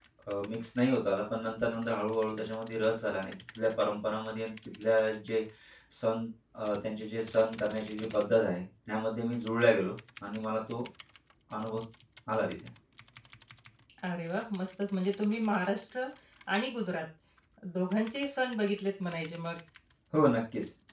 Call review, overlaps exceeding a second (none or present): none